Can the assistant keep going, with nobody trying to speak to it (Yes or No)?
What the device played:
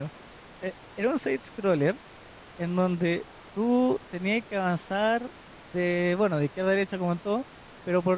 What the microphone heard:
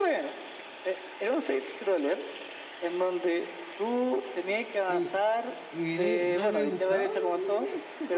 No